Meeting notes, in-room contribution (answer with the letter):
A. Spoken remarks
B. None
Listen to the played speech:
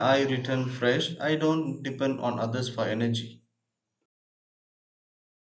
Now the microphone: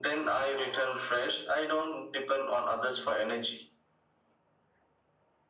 B